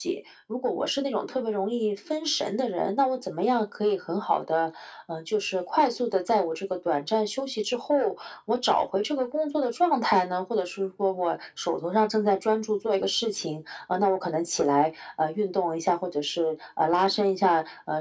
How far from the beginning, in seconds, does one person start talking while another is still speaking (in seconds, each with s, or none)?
none